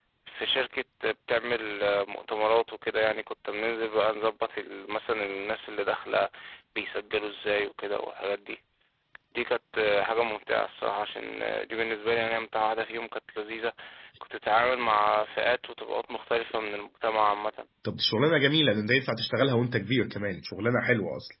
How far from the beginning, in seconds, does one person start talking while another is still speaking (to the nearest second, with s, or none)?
none